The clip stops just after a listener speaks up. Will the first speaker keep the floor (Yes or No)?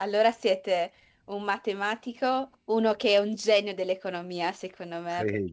No